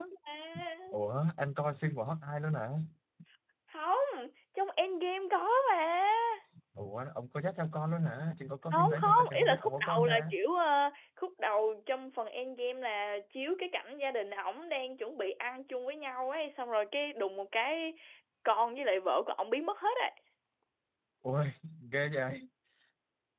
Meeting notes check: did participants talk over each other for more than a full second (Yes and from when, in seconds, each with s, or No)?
Yes, from 8.7 s